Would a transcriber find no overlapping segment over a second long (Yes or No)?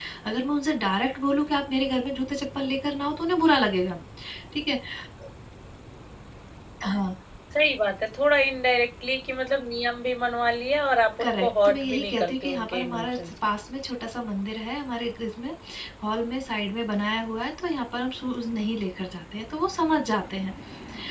No